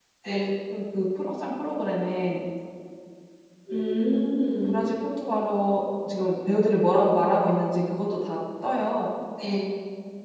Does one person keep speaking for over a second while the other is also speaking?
No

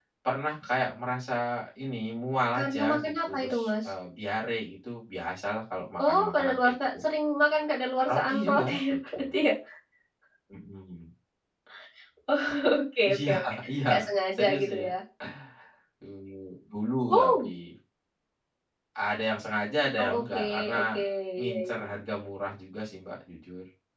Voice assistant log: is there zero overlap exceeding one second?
No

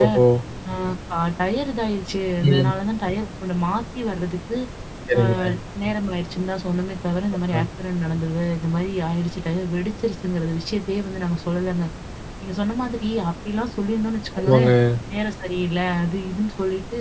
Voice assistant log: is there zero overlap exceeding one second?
Yes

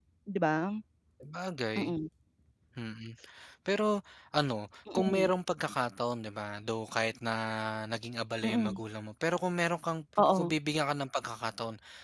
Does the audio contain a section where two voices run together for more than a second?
No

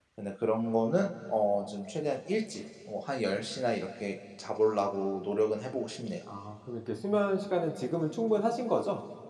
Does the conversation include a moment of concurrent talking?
No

